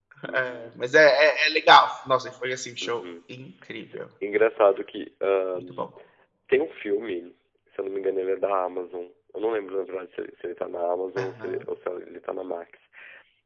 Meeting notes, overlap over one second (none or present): none